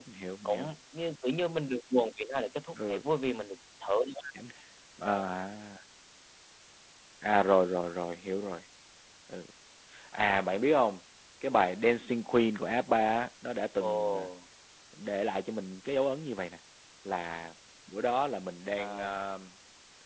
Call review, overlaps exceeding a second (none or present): none